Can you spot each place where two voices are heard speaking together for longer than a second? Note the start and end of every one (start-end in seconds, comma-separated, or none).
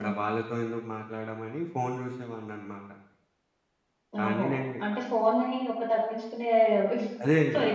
none